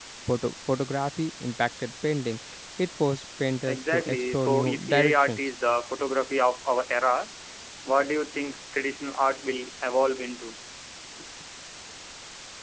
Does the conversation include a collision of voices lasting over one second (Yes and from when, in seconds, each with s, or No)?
Yes, from 3.7 s